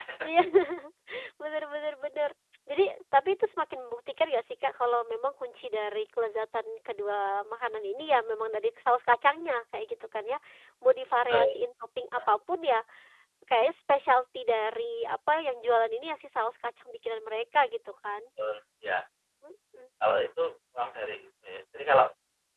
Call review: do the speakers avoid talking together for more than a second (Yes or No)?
Yes